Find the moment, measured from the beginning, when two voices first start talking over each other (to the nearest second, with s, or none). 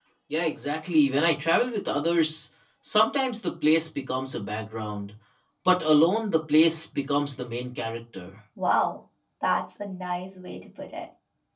none